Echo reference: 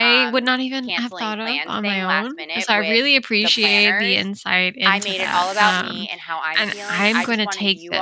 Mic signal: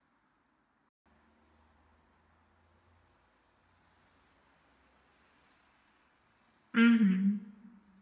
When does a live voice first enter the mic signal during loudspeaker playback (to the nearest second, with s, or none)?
7 s